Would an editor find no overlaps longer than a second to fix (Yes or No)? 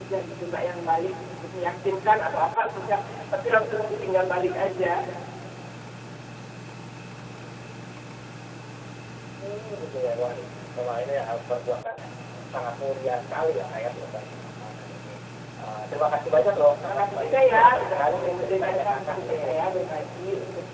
No